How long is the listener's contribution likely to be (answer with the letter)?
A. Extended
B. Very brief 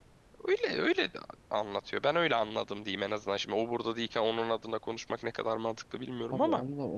A